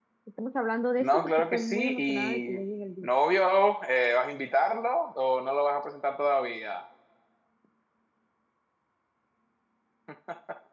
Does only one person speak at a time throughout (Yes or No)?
No